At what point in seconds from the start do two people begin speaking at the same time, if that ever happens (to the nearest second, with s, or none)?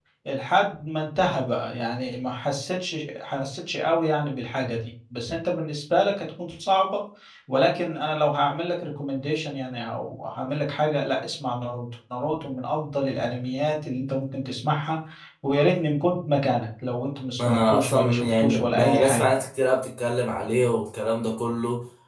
17 s